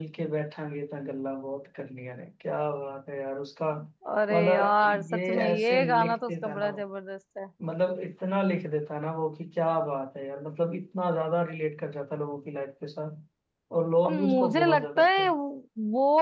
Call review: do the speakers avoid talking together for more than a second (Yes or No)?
No